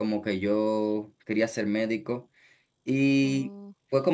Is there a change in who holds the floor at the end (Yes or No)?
No